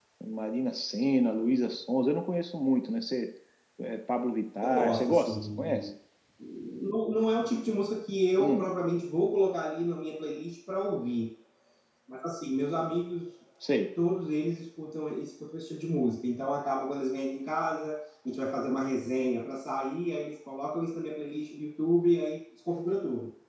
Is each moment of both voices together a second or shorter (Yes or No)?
No